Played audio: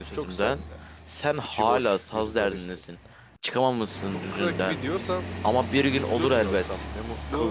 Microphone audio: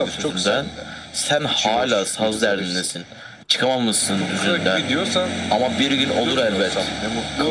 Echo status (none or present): present